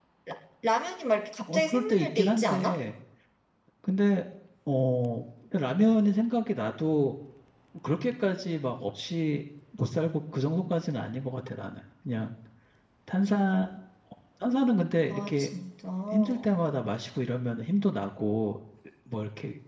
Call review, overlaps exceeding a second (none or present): present